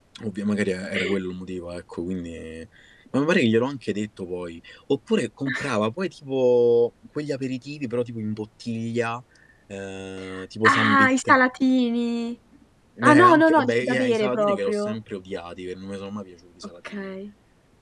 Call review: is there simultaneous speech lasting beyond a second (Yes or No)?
Yes